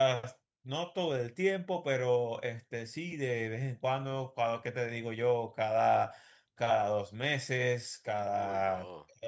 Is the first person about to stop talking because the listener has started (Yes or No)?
No